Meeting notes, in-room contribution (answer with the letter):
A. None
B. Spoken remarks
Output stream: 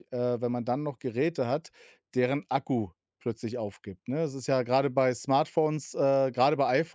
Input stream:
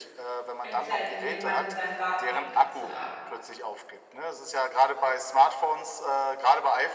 B